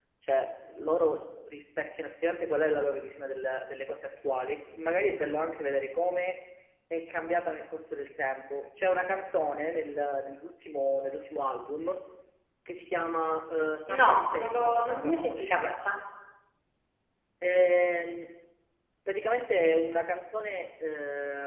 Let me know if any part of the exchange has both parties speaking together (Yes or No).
Yes